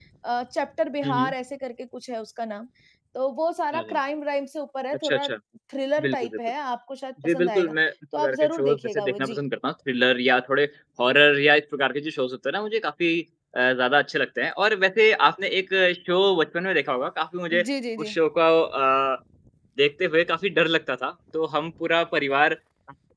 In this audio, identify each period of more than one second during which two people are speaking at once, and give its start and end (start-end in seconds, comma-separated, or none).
8.2-9.4